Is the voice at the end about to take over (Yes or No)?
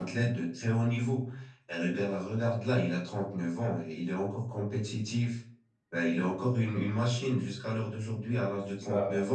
No